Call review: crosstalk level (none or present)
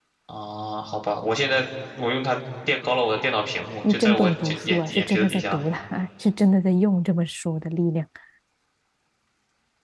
present